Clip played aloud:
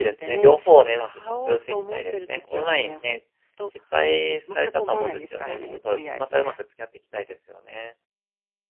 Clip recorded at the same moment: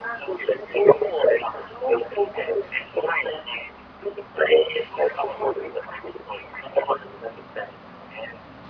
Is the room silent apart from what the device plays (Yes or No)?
Yes